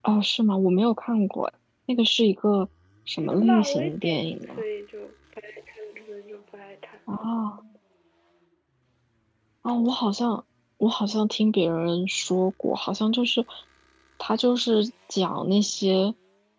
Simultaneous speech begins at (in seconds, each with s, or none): 3.2 s